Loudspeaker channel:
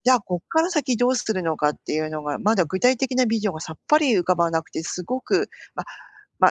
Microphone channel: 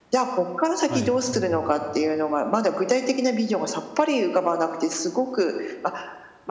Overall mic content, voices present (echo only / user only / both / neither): both